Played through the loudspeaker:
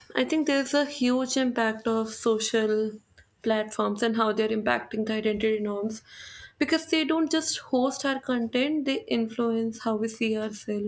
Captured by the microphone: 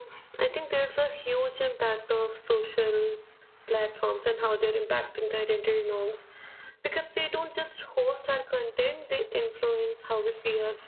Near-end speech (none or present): none